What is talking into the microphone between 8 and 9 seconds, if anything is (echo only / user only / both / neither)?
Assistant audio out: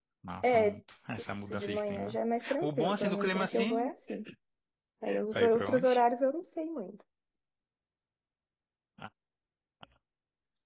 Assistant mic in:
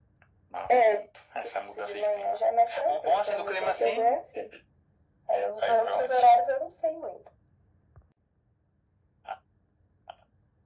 neither